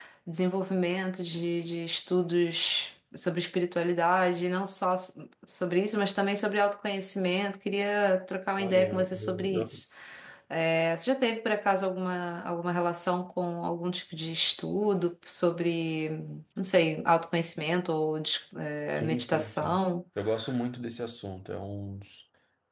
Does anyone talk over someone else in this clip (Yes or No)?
Yes